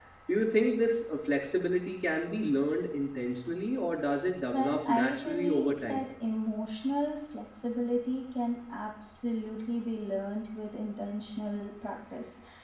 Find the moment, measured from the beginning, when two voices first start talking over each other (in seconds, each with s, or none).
4.5 s